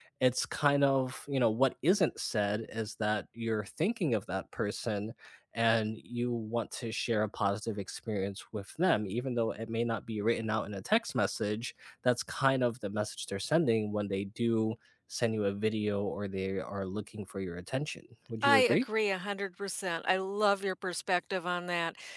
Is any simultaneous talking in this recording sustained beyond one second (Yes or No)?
No